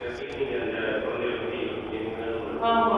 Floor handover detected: Yes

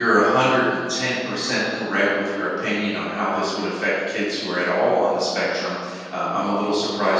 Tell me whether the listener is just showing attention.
Yes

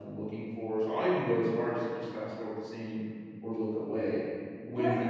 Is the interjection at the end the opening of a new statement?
Yes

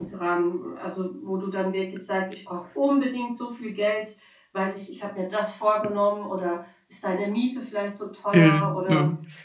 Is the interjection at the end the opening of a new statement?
Yes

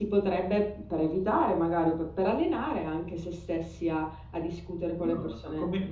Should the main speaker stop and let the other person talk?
Yes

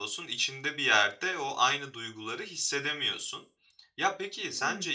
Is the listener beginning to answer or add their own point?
No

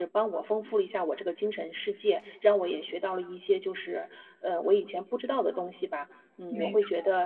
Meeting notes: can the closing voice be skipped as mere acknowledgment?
Yes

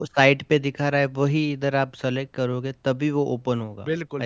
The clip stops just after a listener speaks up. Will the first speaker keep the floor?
No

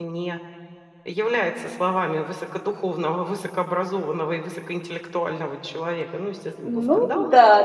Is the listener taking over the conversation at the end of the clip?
Yes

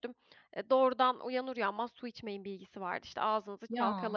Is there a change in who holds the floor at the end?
No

